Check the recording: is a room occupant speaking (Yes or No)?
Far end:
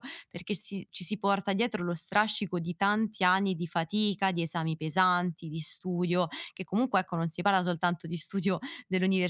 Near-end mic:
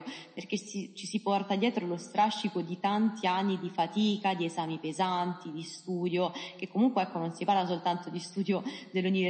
No